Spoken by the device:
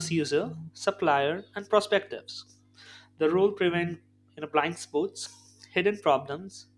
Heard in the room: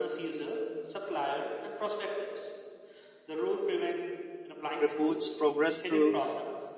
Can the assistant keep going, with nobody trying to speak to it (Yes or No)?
No